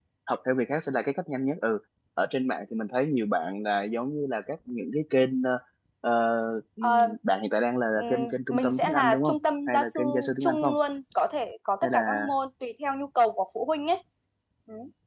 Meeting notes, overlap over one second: present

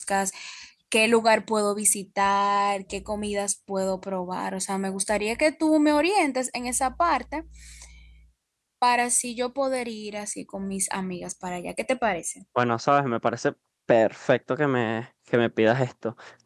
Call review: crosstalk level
none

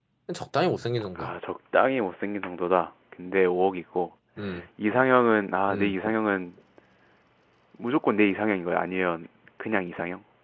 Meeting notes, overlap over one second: none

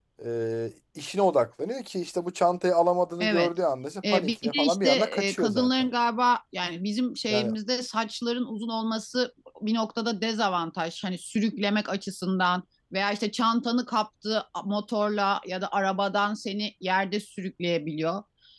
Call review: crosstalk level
present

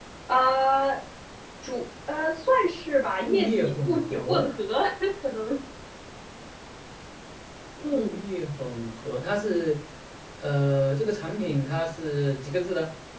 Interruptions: present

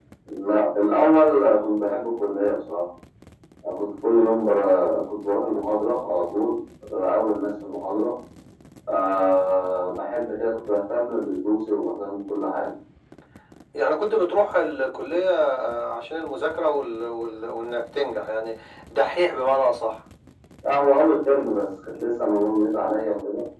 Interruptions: none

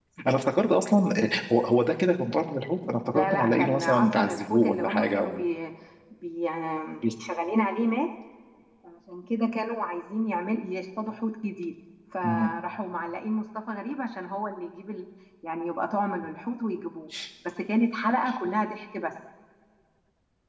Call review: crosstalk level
present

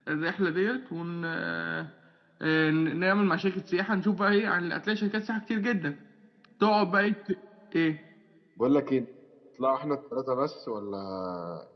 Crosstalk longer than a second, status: none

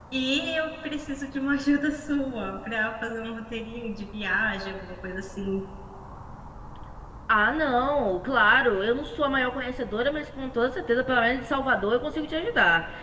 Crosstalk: none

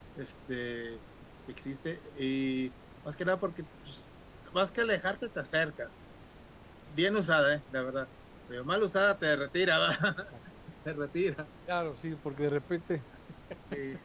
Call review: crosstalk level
none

